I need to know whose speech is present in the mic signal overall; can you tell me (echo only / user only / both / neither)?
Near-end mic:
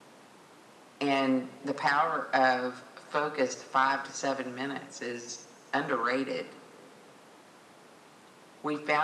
echo only